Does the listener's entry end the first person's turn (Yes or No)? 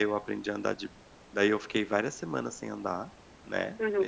Yes